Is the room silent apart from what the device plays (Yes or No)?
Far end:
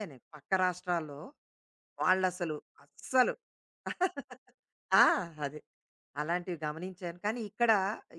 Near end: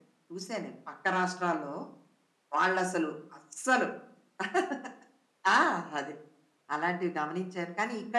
Yes